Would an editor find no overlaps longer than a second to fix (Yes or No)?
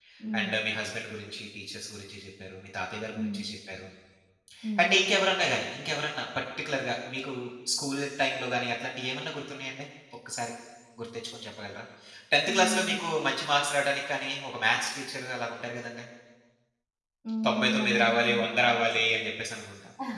No